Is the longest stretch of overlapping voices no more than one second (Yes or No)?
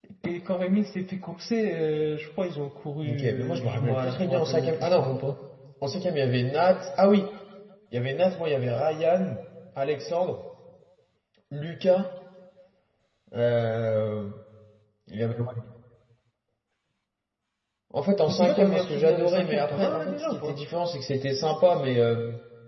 No